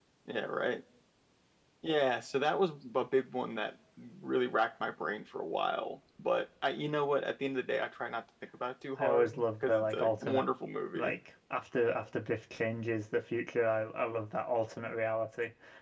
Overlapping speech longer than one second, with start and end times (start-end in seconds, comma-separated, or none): 9.0-10.4